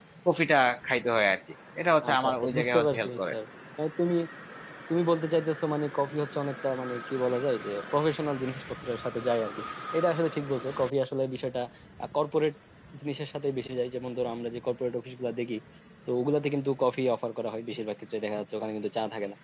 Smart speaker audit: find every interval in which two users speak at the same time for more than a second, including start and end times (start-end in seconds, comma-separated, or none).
2.1-3.3